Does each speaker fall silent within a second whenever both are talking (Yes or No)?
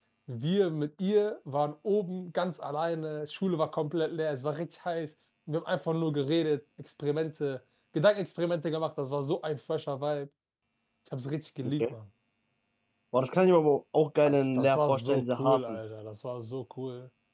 No